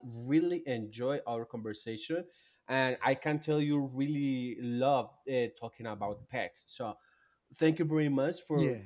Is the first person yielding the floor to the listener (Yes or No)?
No